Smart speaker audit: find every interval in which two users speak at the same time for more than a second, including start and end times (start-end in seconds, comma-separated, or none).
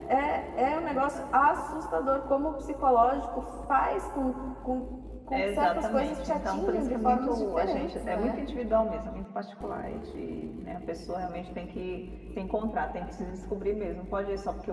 5.3-8.4